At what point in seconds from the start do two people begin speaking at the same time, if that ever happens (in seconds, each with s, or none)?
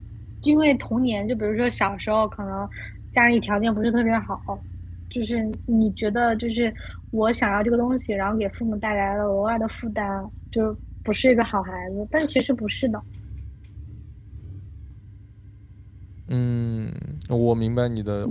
none